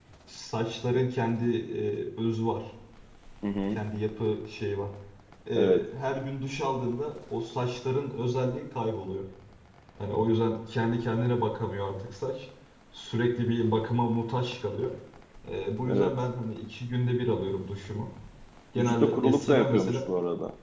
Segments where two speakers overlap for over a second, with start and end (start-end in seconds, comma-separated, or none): 18.8-20.0